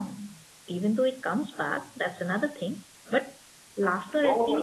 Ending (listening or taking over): taking over